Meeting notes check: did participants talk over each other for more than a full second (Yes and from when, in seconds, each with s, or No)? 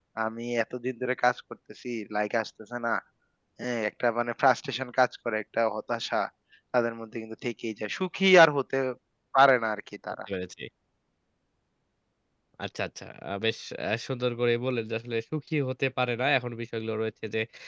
No